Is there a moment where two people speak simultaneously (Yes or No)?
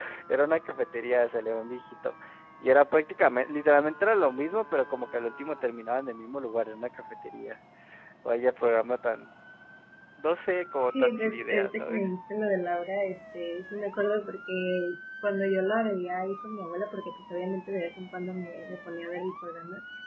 Yes